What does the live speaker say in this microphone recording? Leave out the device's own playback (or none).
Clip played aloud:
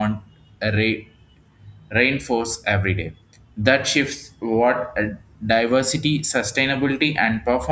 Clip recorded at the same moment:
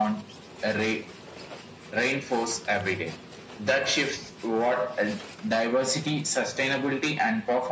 none